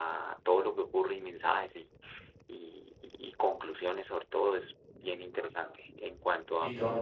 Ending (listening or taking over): listening